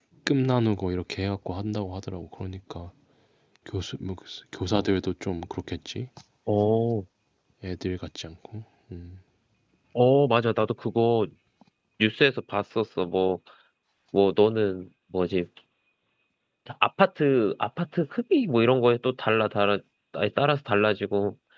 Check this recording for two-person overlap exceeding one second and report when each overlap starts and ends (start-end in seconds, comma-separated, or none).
none